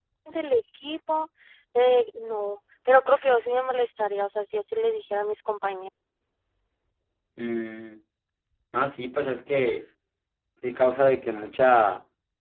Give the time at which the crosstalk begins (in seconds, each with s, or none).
none